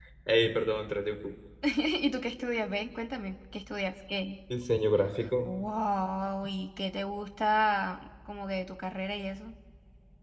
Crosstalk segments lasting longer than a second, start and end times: none

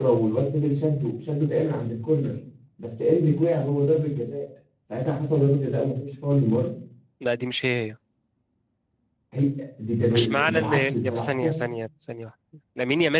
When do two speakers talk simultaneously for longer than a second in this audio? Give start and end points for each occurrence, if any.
10.1-11.5

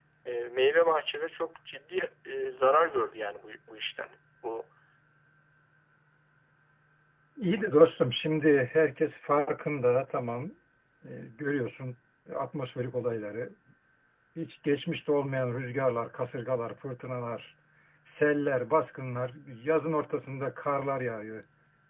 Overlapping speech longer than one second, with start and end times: none

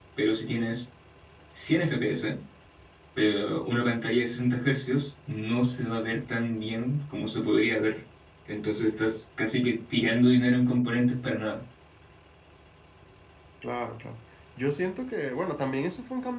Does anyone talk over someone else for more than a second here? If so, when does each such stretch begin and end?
none

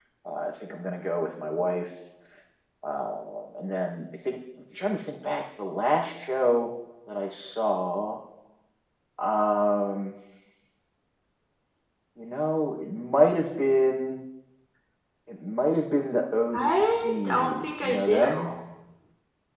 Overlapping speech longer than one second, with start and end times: 16.5-18.5

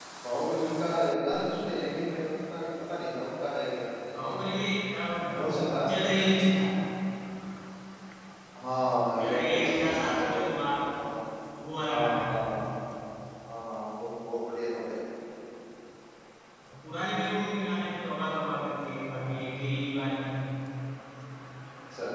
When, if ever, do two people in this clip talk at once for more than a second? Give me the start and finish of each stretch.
9.2-10.5

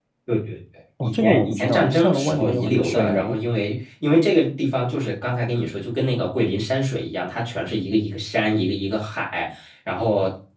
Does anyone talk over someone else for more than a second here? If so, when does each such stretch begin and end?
1.0-3.4

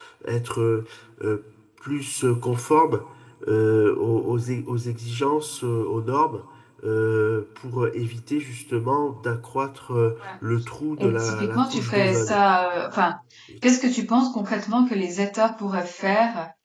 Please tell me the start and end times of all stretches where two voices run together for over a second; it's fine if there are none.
11.0-12.4

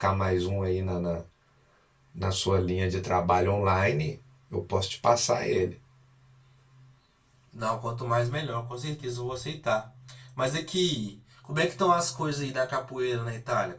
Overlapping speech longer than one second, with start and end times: none

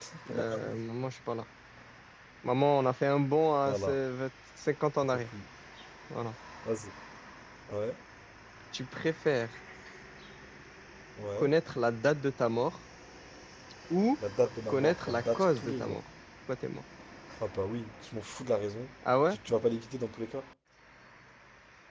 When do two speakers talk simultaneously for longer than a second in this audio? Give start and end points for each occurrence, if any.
14.7-16.0

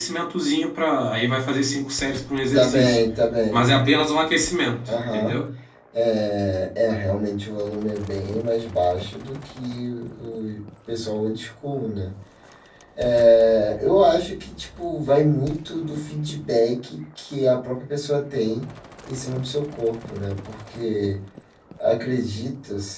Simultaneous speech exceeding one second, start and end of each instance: none

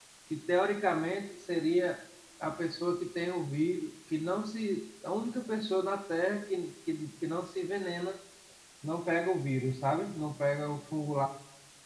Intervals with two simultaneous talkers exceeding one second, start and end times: none

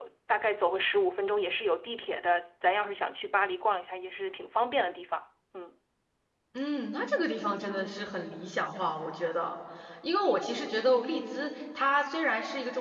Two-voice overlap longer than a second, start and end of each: none

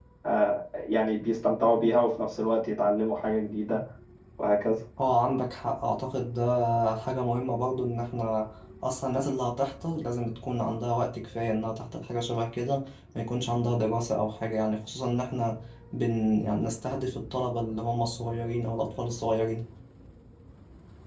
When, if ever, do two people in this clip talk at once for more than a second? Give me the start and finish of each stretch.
none

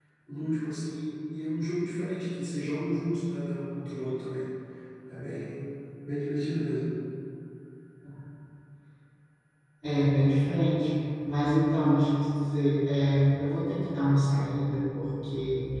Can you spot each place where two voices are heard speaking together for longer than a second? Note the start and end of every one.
none

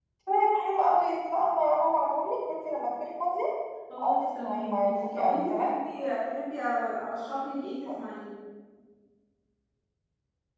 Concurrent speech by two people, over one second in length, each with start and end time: 4.0-5.7

